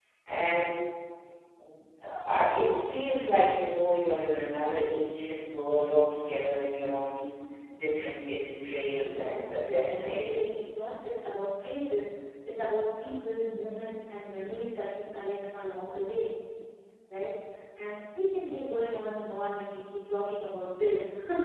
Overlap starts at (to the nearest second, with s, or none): 9 s